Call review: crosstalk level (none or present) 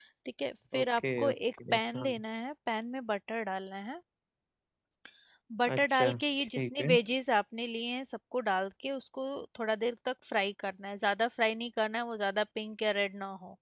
present